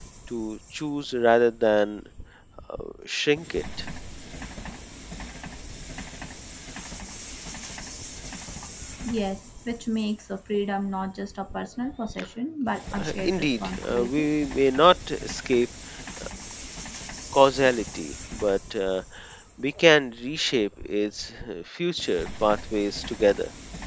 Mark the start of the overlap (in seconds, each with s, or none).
12.9 s